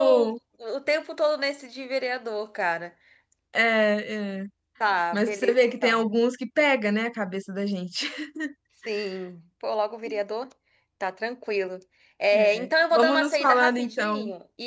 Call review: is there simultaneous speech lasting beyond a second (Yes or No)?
Yes